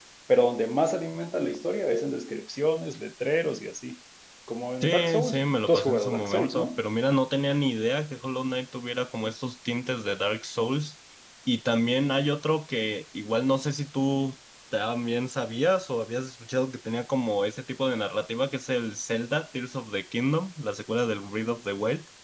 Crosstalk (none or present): present